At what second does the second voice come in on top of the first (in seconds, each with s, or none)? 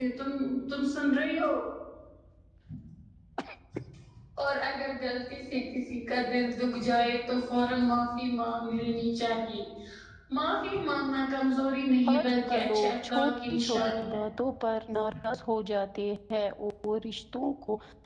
12.1 s